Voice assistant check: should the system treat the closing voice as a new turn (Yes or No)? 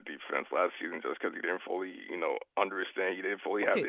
Yes